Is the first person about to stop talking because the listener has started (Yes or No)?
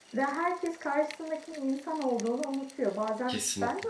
No